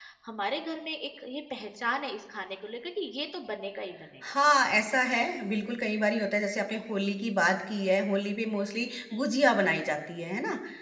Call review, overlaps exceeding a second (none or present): none